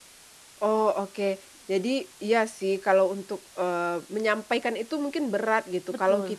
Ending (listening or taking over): listening